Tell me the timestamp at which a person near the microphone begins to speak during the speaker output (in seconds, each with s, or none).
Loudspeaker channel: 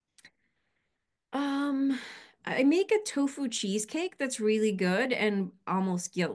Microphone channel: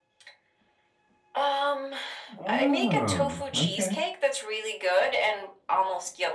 2.4 s